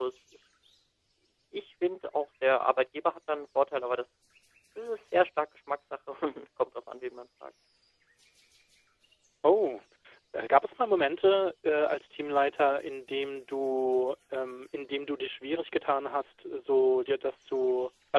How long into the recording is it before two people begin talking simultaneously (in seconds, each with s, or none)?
none